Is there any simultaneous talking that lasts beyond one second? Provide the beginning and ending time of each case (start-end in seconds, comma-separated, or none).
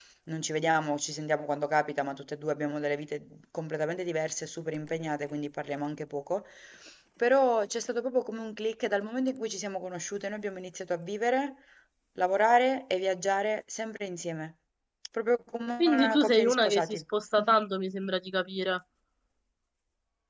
15.8-17.0